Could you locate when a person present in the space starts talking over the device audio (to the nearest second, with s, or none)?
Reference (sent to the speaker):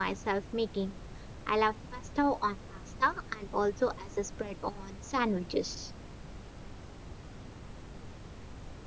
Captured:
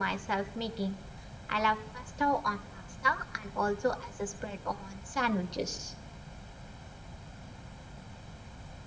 none